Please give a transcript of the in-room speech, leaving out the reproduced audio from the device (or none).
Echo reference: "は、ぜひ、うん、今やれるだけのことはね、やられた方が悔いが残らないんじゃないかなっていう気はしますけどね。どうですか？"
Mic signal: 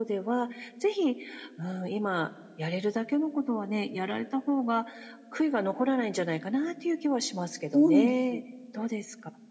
そうなんです。